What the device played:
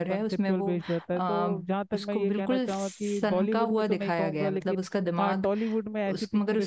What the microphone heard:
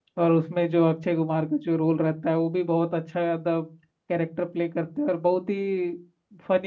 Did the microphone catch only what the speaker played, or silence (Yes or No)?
No